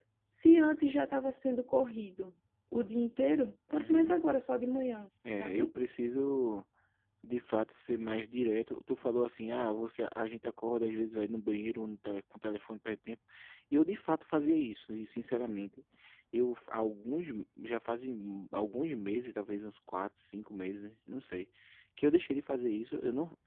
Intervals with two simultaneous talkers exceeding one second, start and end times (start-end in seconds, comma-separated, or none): none